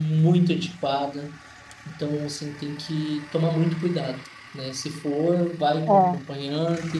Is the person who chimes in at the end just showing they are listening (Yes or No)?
Yes